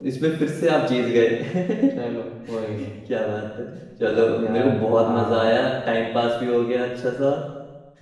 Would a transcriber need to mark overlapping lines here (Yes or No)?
Yes